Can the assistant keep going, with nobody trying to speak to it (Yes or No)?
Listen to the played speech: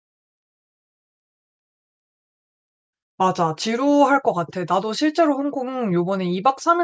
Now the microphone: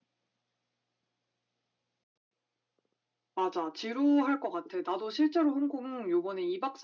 Yes